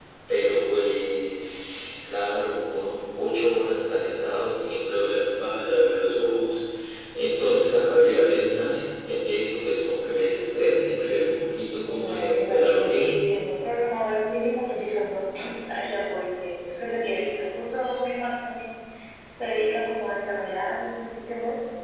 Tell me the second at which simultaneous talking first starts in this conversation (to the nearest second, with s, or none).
12 s